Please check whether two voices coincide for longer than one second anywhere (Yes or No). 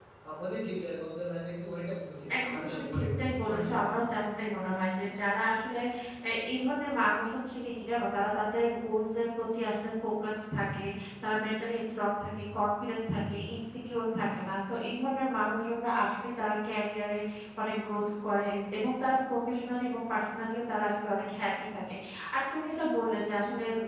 Yes